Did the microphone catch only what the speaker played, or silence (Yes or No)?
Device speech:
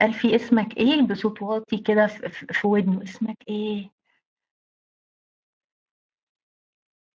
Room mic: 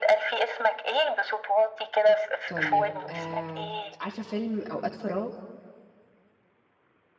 No